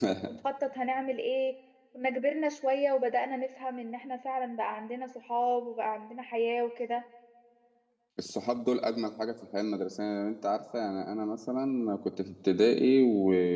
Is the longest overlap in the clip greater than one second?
No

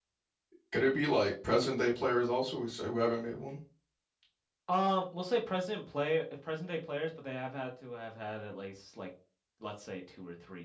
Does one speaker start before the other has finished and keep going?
No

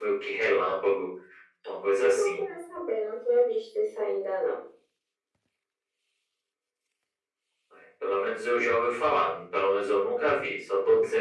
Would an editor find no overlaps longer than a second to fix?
Yes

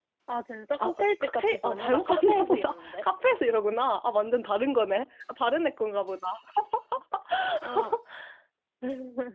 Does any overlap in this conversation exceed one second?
Yes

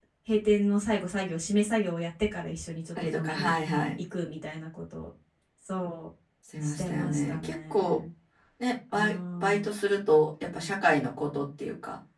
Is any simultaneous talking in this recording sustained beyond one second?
Yes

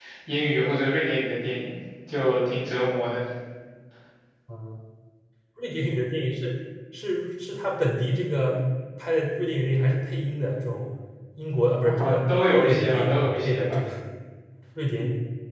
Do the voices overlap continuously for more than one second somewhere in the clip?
Yes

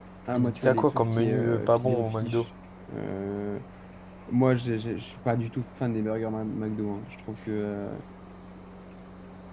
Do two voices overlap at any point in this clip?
Yes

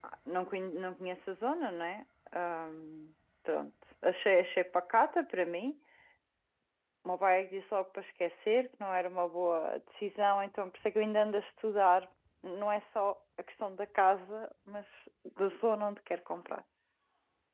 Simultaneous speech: No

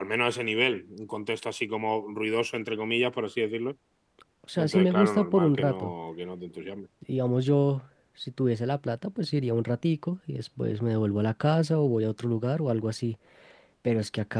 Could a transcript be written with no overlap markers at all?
No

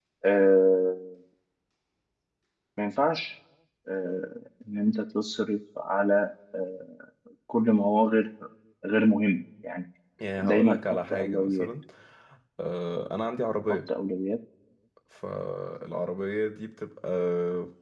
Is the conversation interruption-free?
No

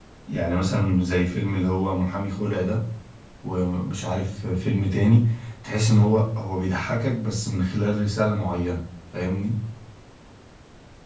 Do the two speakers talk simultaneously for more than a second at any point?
No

